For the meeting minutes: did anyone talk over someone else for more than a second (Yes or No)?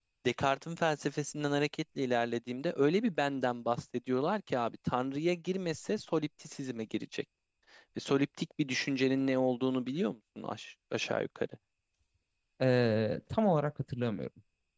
No